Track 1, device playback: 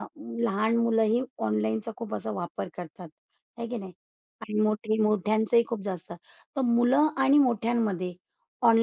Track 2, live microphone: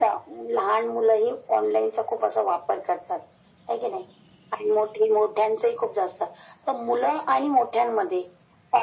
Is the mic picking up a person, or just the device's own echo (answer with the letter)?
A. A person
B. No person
B